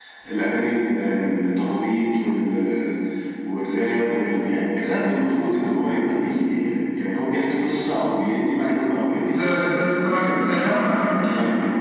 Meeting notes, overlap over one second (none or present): present